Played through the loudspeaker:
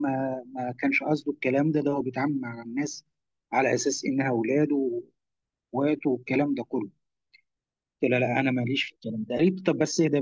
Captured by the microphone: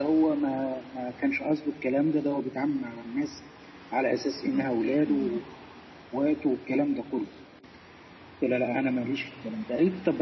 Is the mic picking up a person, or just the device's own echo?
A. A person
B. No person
A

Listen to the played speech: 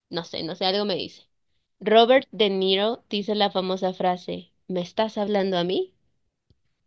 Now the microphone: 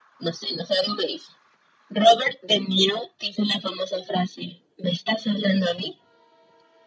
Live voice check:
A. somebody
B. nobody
B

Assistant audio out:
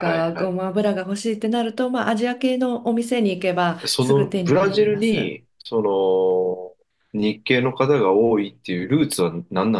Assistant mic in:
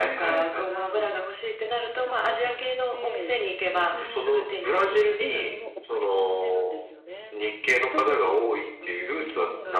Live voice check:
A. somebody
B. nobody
A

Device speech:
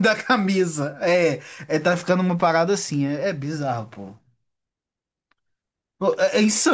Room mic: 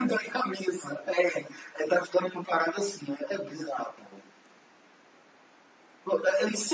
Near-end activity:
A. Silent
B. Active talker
A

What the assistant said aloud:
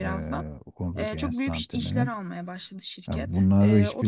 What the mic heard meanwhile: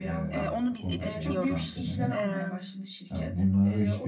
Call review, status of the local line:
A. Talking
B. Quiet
A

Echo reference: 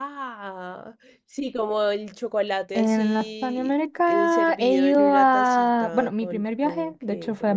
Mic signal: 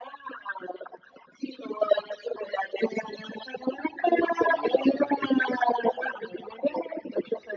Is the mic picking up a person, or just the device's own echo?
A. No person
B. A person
B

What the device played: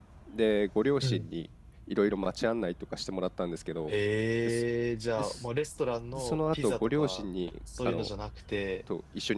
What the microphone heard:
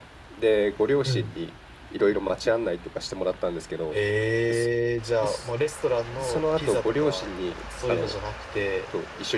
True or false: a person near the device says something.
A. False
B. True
A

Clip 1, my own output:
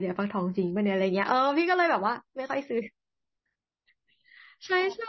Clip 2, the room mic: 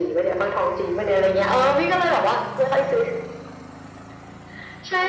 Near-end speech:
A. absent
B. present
A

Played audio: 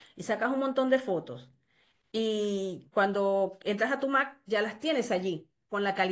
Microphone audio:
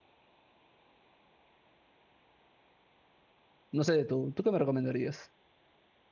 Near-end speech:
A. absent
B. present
B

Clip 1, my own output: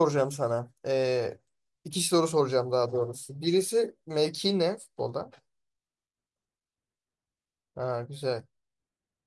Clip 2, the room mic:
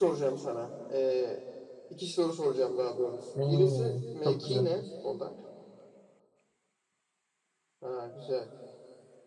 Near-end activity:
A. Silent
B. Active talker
B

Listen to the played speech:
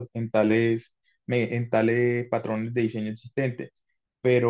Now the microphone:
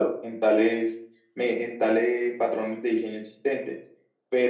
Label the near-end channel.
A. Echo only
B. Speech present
A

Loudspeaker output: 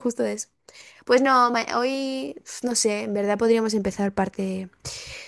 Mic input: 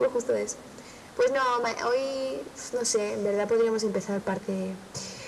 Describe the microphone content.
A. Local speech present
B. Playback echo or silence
B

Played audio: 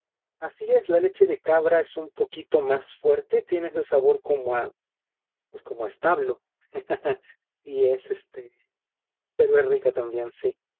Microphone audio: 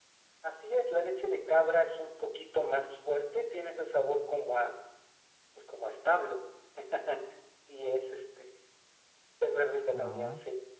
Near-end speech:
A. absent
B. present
B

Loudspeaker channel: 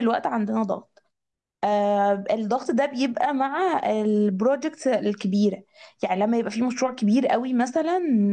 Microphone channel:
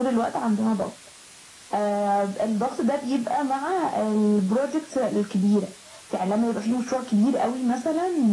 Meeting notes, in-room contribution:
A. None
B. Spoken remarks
A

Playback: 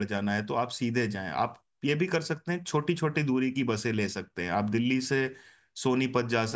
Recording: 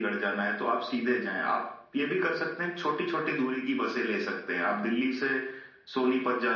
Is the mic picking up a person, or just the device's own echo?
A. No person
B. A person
A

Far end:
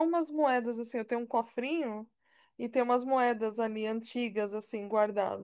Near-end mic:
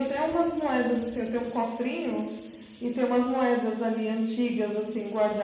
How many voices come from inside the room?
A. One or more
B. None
B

